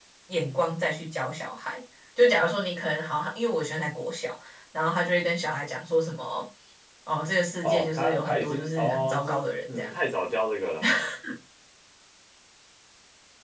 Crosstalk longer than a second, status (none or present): present